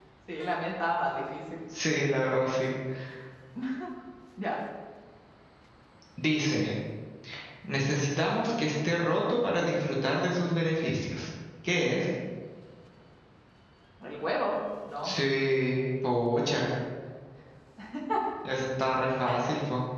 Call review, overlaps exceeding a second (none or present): none